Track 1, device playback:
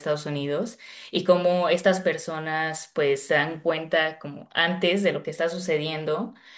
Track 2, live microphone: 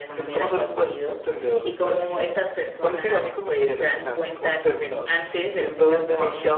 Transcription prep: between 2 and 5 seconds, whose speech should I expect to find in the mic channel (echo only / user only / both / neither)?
both